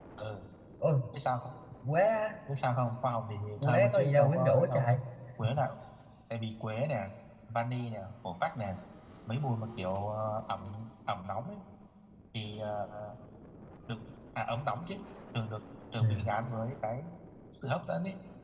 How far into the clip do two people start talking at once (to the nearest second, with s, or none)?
4 s